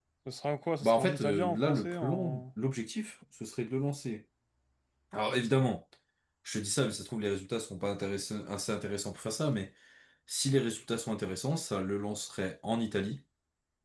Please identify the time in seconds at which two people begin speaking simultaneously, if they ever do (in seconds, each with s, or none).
0.8 s